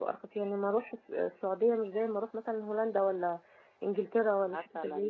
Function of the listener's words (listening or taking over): taking over